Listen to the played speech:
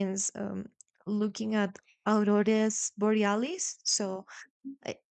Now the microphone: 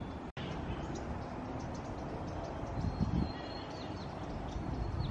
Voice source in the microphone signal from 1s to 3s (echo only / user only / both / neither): neither